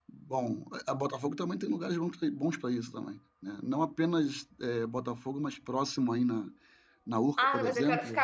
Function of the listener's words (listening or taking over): taking over